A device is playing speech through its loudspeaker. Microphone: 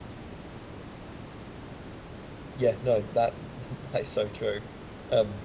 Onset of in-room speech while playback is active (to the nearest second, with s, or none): 3 s